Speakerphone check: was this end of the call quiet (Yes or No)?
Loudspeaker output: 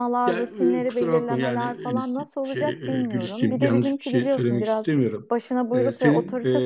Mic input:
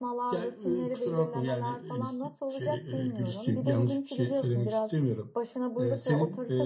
Yes